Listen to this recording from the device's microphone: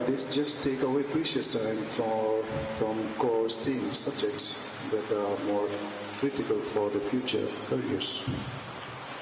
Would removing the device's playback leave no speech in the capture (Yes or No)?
Yes